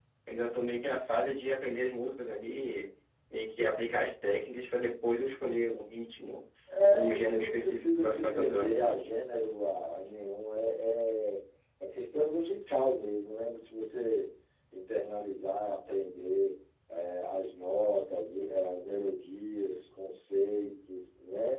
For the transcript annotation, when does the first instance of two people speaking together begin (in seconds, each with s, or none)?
6.9 s